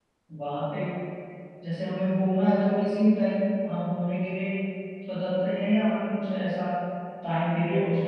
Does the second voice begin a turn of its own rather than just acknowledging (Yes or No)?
No